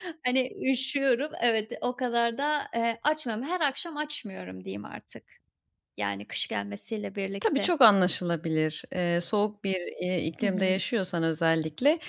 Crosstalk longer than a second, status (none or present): none